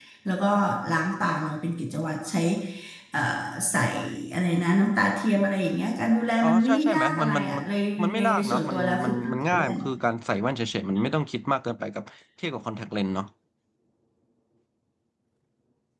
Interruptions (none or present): present